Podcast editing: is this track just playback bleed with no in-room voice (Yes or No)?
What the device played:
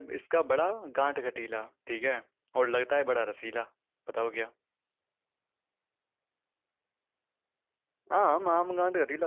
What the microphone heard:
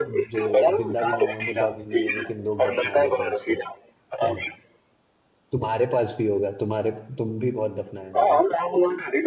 No